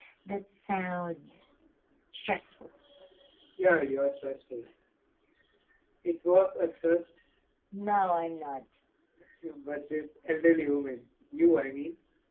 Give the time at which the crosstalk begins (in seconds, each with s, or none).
none